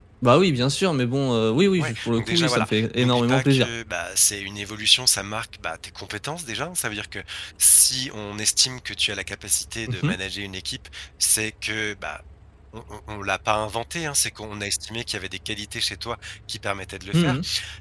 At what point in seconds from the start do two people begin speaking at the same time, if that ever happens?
1.8 s

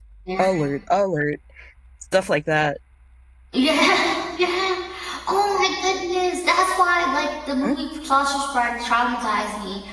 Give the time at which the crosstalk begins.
none

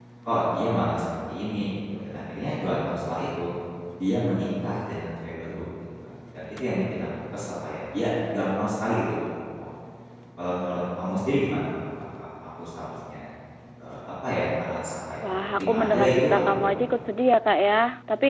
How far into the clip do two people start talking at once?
15.2 s

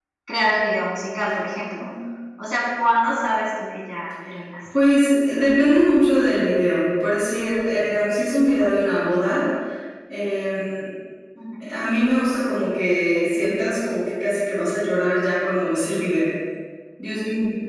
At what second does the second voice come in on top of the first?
none

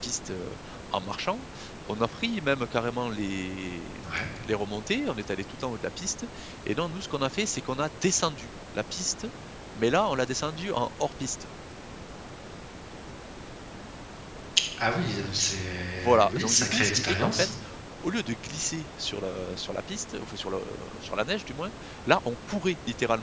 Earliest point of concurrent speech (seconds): 15.9 s

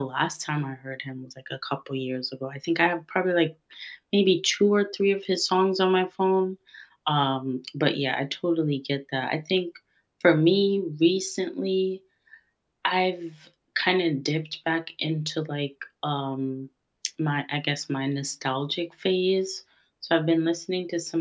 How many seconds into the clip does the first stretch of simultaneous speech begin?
none

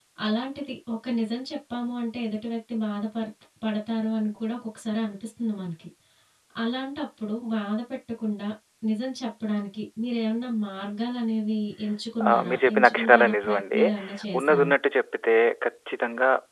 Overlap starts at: 12.3 s

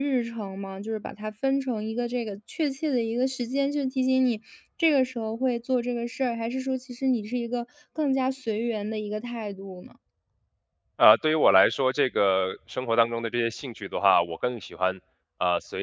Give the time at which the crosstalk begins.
none

